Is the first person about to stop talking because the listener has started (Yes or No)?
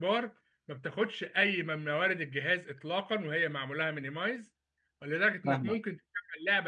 No